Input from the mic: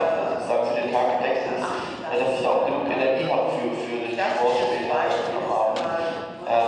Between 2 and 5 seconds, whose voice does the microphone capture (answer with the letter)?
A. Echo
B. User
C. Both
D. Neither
A